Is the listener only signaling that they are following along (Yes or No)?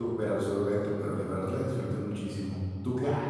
No